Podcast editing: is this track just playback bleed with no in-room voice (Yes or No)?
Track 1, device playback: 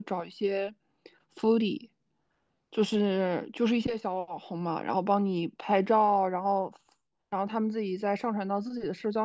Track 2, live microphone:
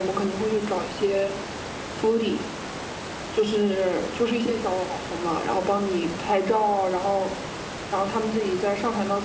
Yes